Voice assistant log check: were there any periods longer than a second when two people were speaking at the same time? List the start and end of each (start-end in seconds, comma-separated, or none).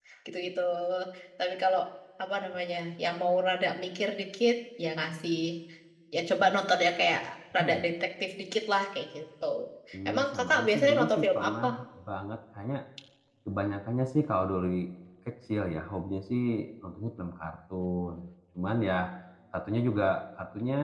10.1-11.6